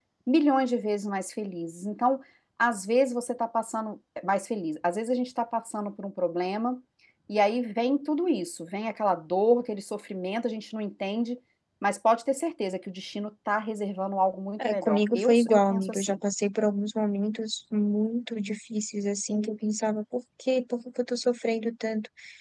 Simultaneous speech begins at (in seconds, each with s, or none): 14.6 s